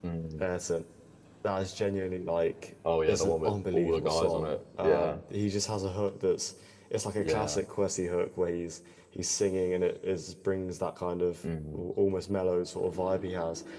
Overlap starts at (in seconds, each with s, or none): 3.1 s